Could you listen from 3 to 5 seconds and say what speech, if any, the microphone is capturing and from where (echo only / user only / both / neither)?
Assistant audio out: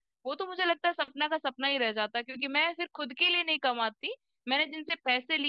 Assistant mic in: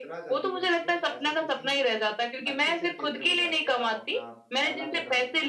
both